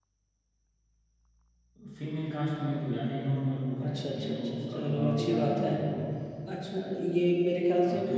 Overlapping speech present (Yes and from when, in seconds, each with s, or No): Yes, from 3.9 s